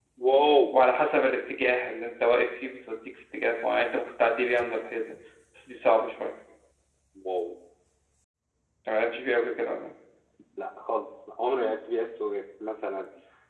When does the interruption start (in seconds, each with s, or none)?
none